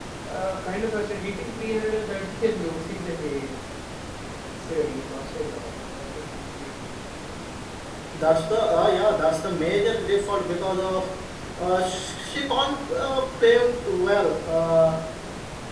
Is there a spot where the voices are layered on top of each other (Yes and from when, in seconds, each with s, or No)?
No